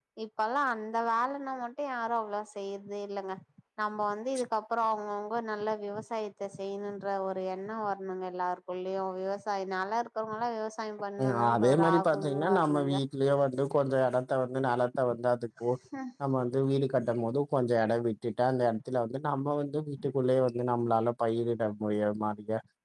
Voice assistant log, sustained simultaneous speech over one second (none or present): present